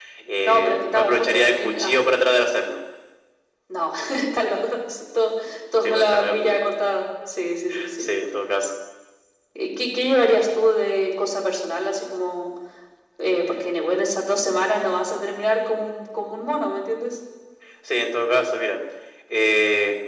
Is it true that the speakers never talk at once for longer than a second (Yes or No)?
No